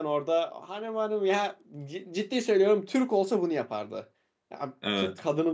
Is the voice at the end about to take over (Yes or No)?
No